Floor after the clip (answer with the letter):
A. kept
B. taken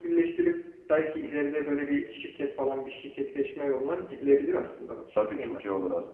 B